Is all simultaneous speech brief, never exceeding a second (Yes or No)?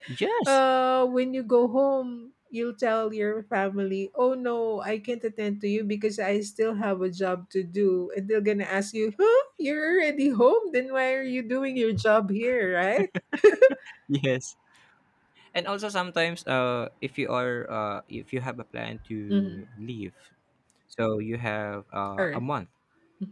Yes